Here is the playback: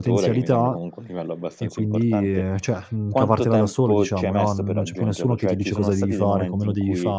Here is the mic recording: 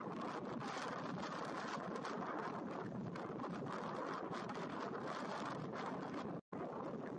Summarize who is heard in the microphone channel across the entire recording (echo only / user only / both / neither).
neither